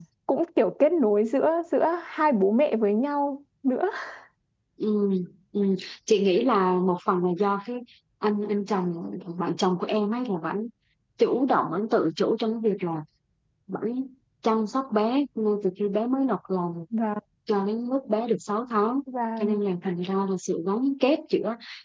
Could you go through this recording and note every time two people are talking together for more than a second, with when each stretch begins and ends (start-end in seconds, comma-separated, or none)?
none